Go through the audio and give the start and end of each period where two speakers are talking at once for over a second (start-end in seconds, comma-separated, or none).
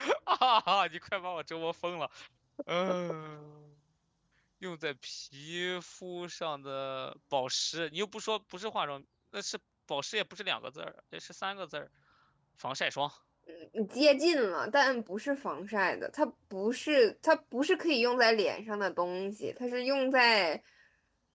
none